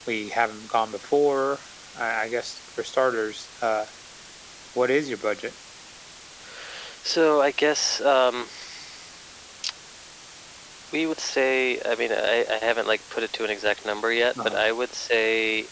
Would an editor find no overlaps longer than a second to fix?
Yes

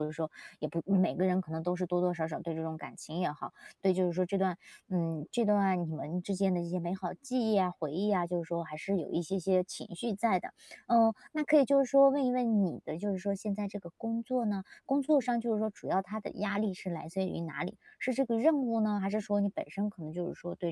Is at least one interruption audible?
No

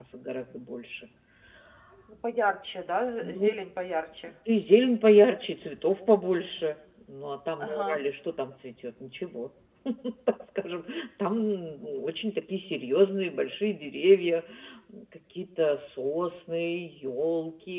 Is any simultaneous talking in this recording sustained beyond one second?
No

